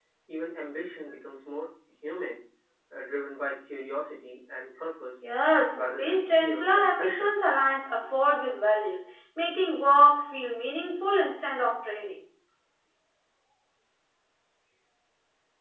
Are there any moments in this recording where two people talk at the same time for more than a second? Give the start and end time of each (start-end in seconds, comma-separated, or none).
5.8-7.3